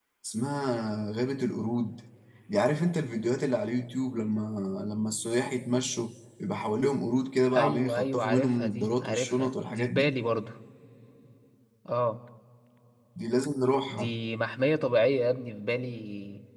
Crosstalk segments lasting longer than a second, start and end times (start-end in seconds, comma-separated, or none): 7.5-10.1